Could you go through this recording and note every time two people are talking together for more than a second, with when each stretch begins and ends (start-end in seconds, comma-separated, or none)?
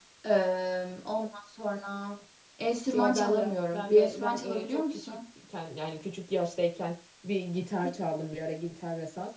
2.9-5.2